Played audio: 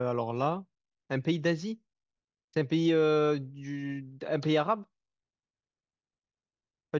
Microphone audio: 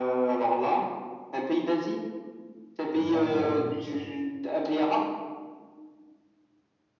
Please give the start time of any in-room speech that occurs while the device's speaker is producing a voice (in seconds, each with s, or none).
2.9 s